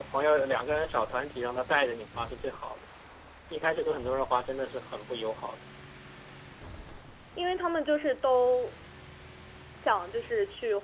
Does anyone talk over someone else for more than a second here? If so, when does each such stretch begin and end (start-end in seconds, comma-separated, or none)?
none